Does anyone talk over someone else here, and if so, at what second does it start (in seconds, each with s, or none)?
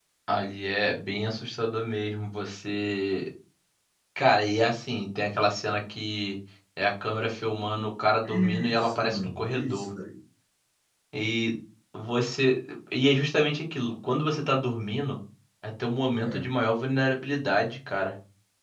8.2 s